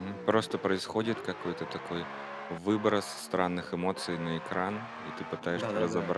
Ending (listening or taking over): listening